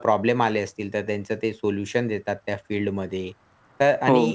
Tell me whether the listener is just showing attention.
Yes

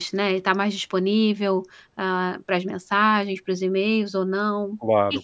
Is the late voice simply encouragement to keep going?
No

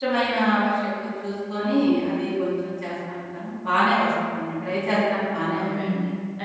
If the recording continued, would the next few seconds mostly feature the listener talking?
Yes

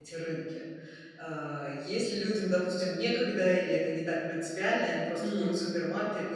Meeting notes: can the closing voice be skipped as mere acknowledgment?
Yes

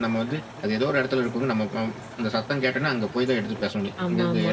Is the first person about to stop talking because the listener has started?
No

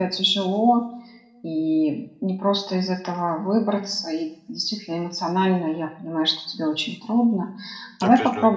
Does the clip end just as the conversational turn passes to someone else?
No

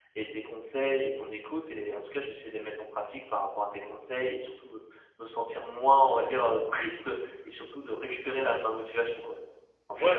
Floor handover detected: Yes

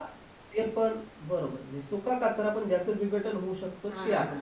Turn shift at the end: Yes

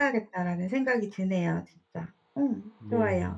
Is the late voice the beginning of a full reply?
Yes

